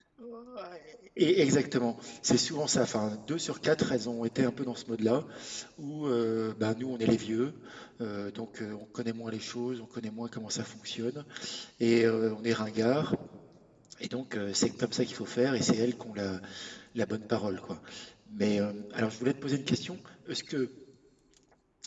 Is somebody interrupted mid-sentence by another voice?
No

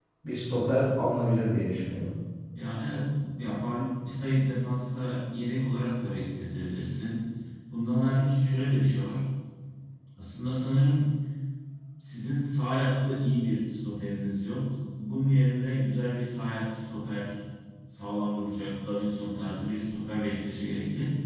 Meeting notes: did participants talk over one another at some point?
No

